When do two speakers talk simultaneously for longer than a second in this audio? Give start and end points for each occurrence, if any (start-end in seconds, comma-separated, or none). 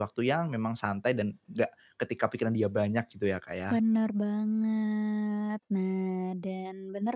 none